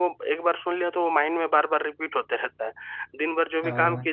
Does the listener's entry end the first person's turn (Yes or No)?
No